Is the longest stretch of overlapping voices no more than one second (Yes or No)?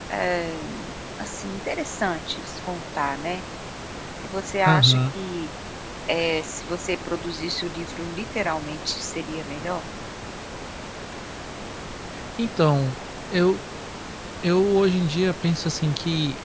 Yes